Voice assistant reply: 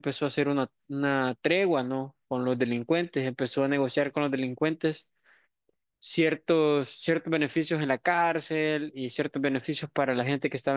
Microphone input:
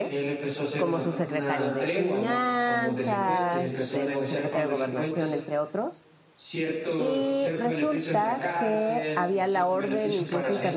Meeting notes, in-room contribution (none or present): present